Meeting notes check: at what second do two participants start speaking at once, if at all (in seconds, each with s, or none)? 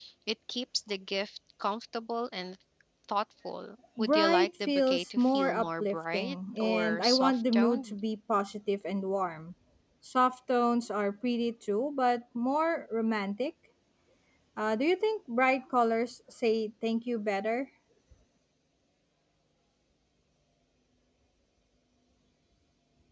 4.0 s